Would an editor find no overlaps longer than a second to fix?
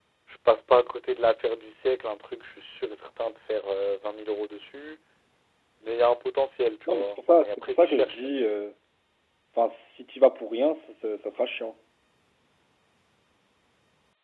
No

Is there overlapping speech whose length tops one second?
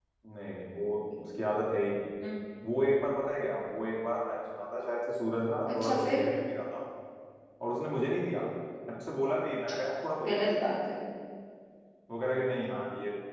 No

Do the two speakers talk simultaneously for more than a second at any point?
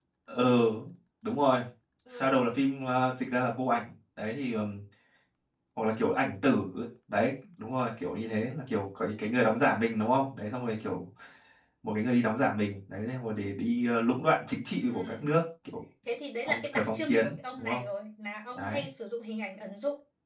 Yes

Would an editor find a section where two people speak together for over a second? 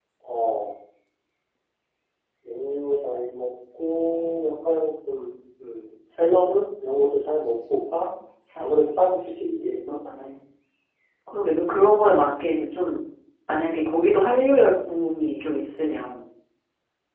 No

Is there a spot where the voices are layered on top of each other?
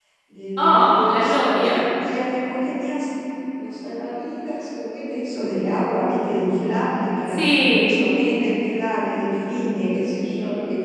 Yes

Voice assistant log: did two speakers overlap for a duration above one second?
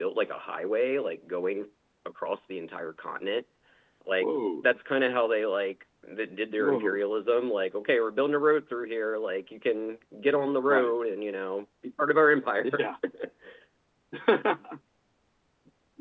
No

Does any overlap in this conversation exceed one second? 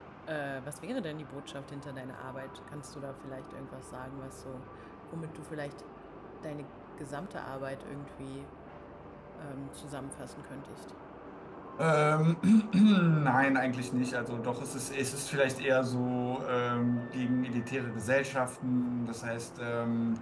No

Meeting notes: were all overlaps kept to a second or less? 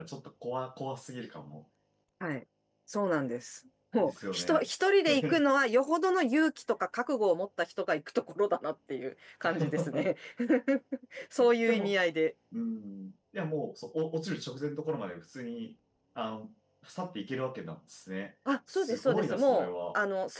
No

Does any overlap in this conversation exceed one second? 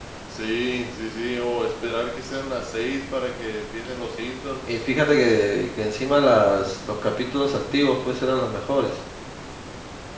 No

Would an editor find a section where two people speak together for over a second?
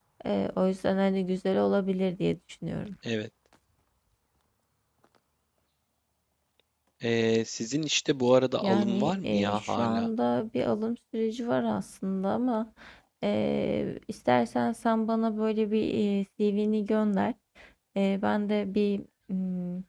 Yes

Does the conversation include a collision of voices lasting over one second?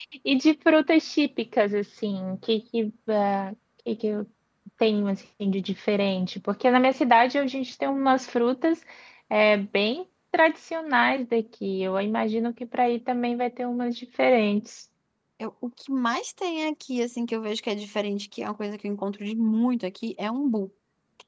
No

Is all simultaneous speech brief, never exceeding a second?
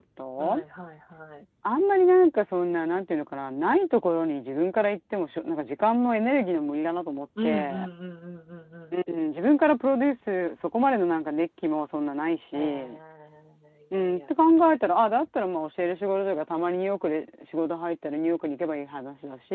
Yes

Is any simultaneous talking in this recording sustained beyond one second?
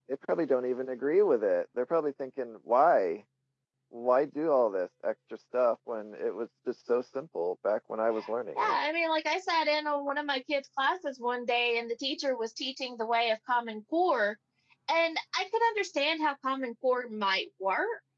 No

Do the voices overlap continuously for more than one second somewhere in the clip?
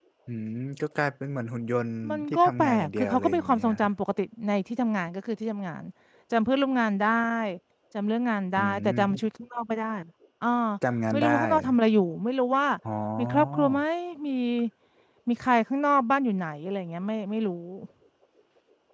Yes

